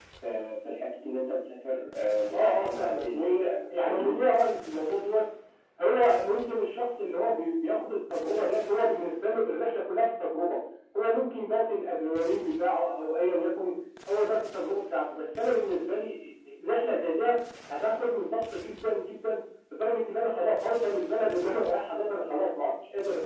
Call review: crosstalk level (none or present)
present